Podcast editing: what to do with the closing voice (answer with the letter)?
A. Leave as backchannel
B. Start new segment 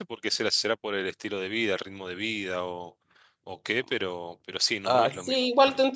B